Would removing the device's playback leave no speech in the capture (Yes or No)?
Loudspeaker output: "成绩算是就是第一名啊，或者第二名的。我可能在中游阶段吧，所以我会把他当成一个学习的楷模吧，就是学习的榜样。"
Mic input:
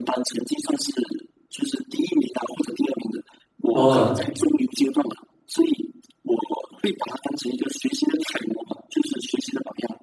No